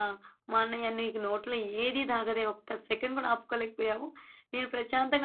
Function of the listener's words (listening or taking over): listening